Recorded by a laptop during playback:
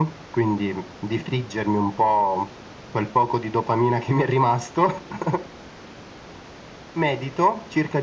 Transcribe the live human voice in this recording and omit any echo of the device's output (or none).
none